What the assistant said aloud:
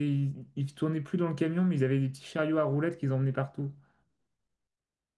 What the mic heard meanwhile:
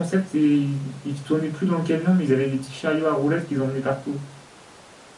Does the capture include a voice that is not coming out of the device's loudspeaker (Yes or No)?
No